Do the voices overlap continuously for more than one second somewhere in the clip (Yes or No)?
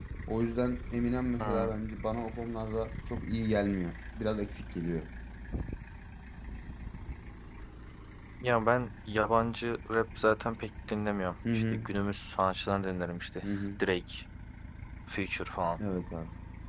No